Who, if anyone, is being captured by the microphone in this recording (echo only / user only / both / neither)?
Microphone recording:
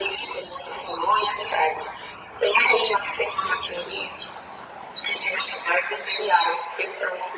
echo only